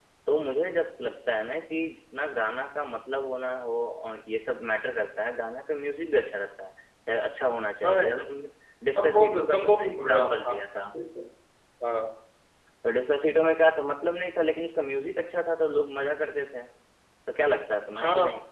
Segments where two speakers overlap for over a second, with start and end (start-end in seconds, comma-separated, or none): 9.0-10.6